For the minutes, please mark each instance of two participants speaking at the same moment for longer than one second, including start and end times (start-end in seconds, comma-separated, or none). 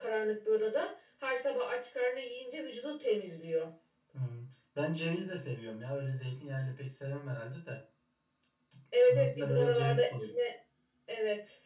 9.0-10.3